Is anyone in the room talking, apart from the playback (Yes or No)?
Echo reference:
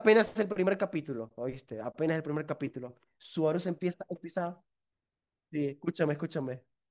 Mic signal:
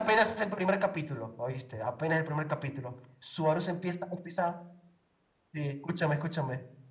No